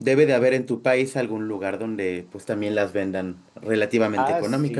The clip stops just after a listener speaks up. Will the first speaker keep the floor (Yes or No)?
No